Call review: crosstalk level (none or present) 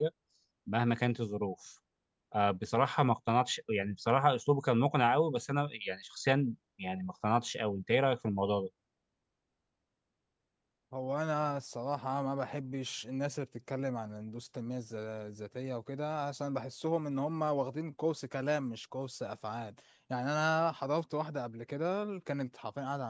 none